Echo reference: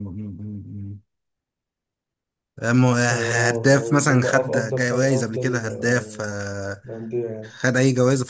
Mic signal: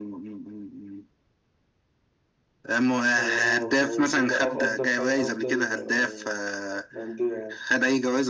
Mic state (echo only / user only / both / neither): echo only